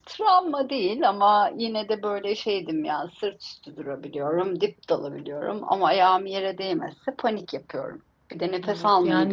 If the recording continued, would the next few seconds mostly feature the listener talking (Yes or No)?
Yes